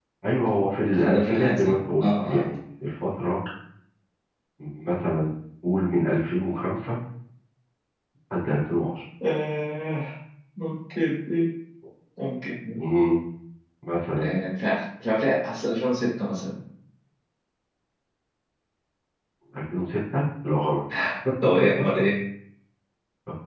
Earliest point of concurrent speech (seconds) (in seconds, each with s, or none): 0.9 s